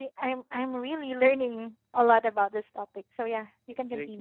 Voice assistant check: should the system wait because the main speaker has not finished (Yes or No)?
No